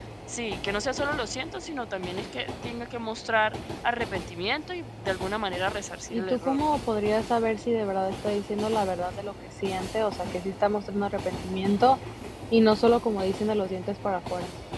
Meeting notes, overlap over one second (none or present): none